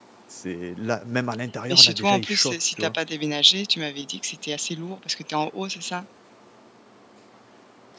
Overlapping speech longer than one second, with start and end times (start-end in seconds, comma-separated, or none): 1.7-2.9